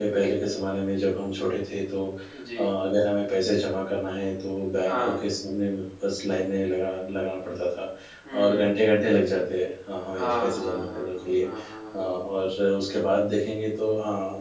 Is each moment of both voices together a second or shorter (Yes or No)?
No